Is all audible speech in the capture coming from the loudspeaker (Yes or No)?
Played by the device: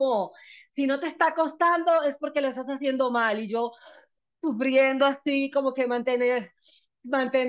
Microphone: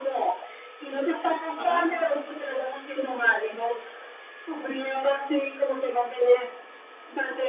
No